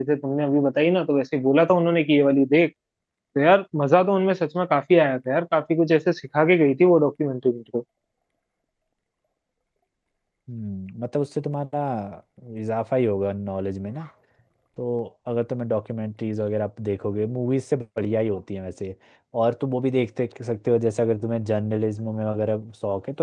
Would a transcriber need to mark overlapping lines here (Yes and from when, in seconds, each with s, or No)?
No